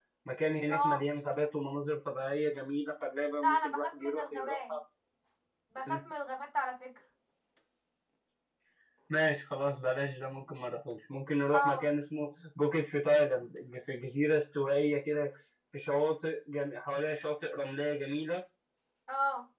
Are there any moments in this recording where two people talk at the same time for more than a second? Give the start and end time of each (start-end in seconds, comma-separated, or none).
3.4-4.7